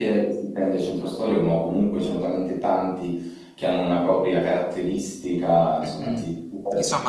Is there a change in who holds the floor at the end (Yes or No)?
Yes